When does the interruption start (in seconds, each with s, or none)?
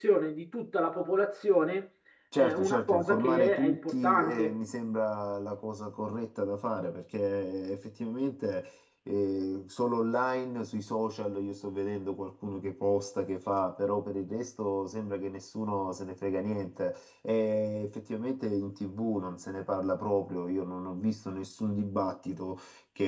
2.4 s